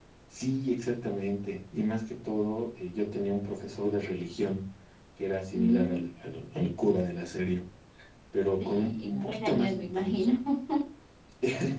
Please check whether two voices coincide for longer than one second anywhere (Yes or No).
Yes